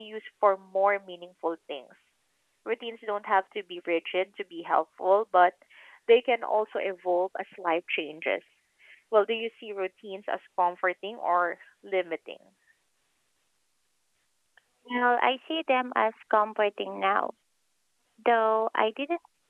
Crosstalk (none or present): none